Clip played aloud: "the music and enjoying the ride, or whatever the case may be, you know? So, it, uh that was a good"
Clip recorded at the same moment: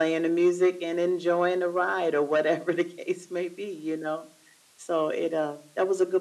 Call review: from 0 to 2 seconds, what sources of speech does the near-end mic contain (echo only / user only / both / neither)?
echo only